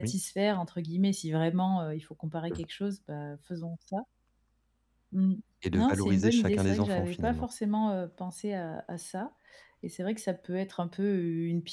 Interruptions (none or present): present